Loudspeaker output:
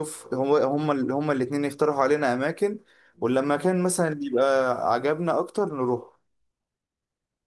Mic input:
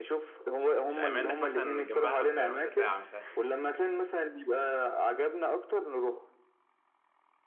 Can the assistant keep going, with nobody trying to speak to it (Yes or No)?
No